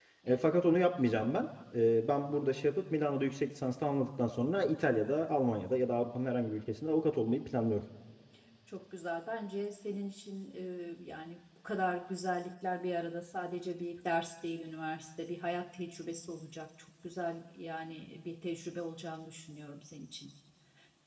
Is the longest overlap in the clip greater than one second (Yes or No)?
No